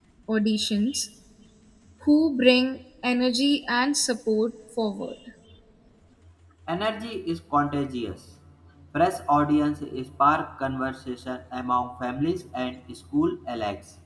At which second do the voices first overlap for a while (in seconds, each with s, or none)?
none